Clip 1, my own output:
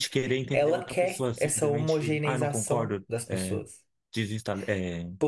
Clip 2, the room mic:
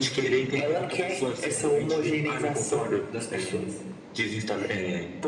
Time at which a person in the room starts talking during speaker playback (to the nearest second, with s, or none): none